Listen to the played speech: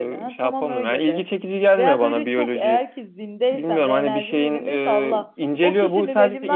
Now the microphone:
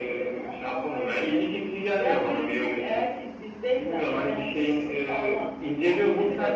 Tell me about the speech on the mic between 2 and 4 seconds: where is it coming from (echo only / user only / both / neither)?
echo only